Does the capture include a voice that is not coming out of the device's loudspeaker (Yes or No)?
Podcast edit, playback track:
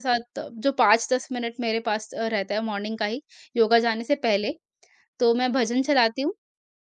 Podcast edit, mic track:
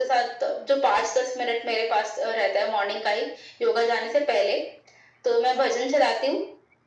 No